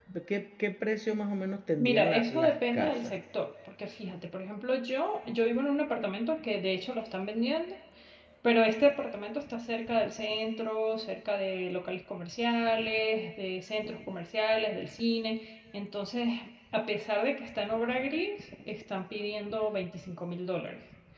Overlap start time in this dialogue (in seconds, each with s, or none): 1.8 s